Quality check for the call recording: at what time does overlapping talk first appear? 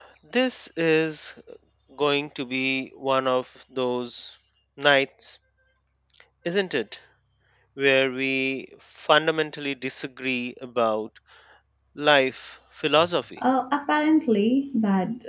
none

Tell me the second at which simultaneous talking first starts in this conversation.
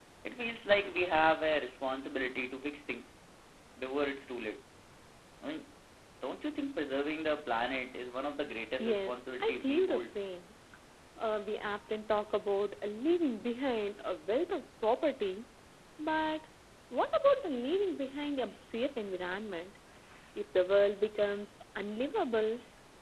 8.8 s

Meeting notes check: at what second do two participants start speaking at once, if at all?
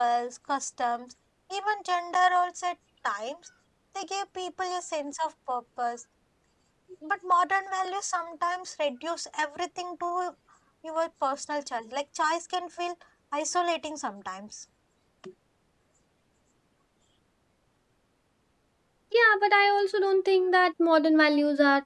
none

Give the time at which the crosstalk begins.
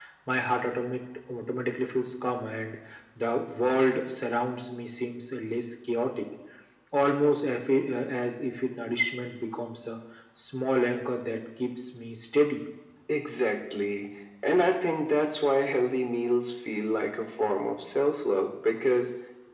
none

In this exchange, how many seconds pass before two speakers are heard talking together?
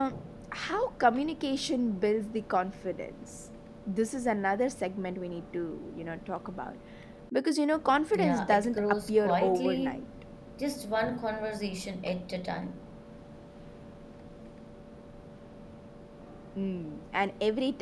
8.1 s

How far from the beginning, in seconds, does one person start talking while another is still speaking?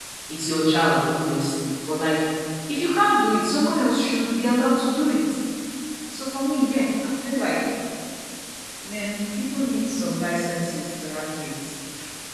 none

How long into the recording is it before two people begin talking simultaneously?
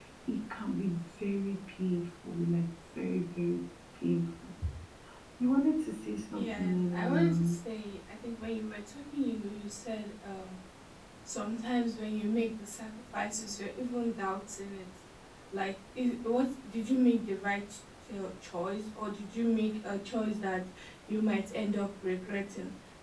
6.3 s

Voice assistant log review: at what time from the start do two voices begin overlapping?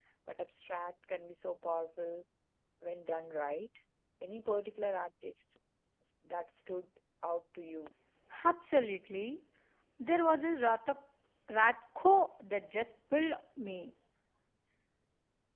none

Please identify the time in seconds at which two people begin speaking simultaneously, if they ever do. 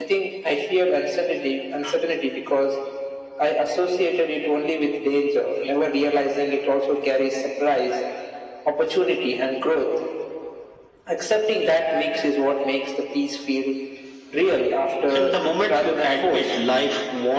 15.1 s

